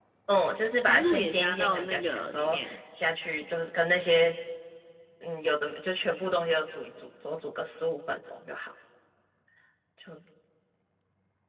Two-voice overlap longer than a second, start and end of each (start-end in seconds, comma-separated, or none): 0.9-2.8